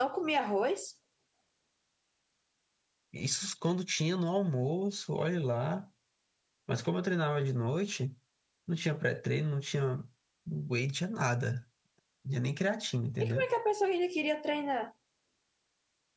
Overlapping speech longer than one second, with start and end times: none

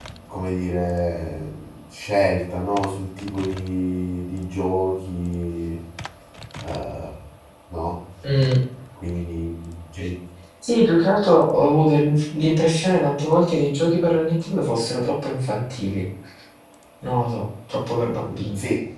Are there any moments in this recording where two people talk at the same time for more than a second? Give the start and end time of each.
none

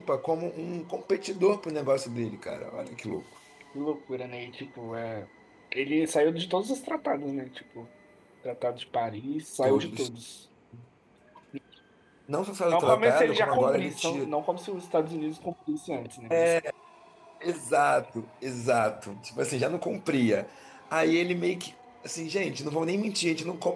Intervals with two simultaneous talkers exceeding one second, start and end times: 12.7-14.3

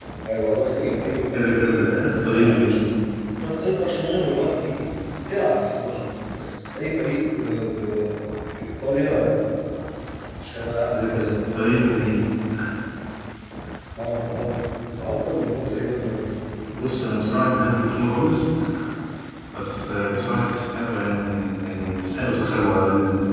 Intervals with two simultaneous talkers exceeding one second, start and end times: 1.3-2.8

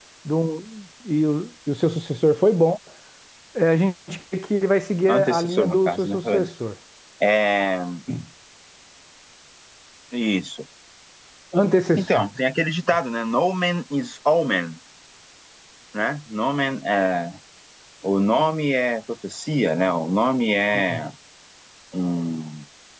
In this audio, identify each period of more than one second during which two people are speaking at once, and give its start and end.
5.1-6.5

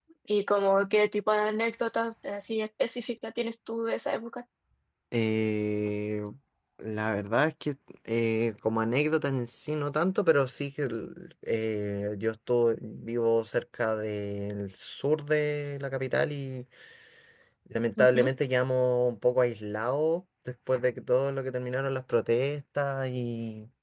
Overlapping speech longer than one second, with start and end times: none

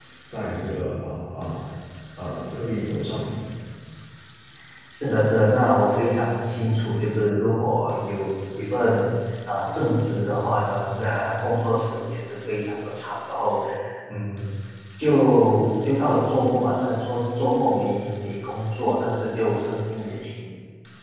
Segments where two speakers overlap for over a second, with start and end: none

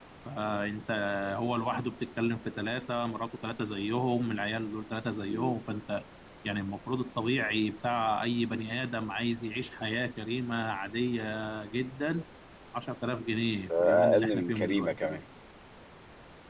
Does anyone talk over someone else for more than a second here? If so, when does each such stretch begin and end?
13.8-15.2

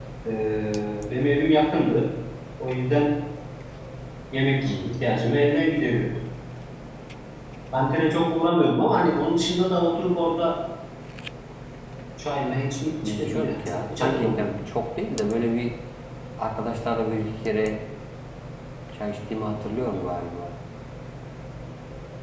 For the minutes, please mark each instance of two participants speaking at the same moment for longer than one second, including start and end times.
13.0-14.4

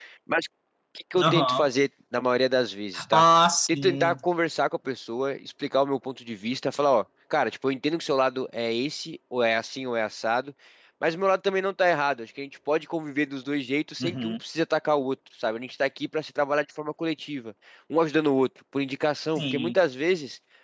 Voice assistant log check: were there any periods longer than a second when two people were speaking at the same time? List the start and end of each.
none

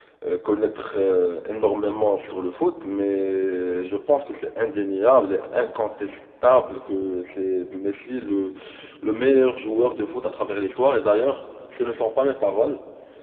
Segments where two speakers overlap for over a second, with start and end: none

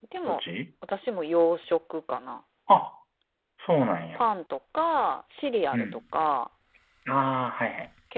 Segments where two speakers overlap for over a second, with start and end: none

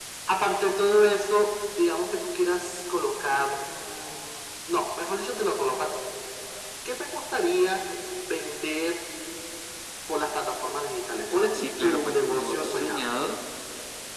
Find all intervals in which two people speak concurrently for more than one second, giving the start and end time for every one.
11.5-13.0

